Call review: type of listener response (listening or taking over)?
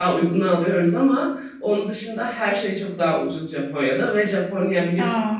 listening